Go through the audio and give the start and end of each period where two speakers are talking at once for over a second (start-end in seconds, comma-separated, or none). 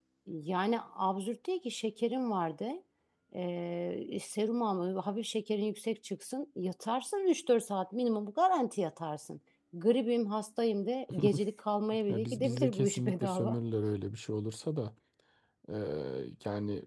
12.1-13.6